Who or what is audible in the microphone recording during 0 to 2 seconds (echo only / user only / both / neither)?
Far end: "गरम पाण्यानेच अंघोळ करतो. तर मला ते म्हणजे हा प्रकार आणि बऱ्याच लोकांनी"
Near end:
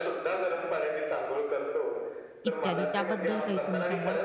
echo only